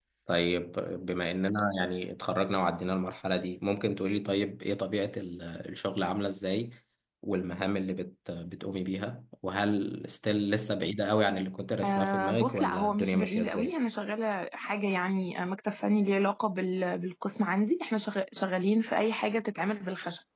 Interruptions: present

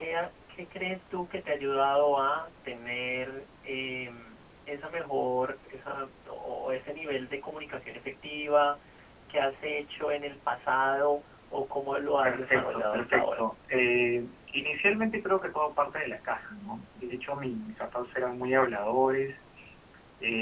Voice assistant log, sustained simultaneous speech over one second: present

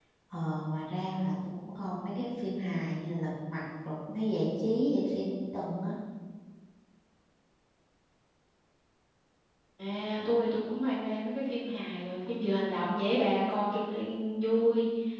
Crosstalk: none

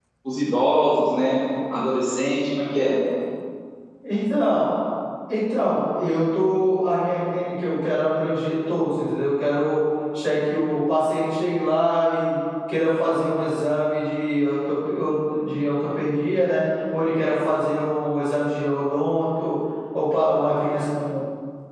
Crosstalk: none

